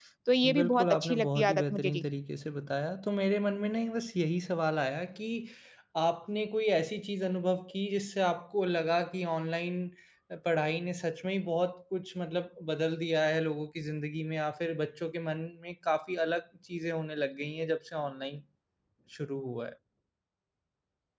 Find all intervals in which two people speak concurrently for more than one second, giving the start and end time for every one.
0.5-2.0

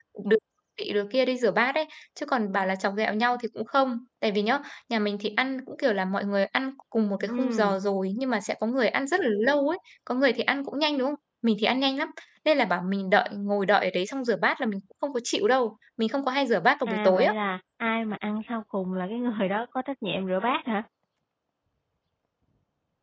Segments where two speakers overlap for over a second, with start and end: none

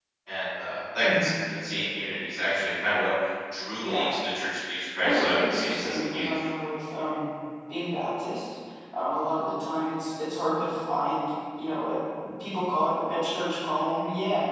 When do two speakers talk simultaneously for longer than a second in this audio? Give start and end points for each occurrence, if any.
5.0-6.4

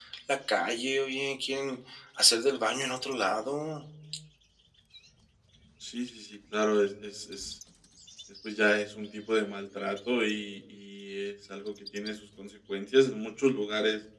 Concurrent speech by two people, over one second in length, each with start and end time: none

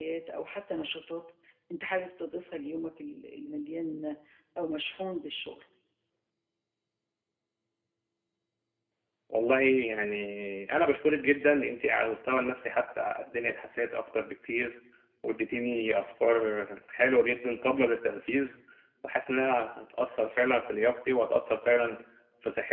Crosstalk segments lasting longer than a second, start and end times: none

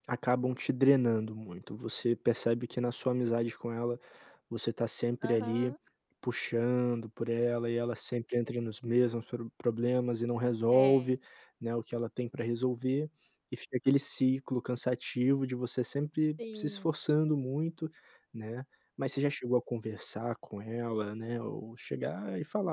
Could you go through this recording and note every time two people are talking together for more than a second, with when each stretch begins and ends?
none

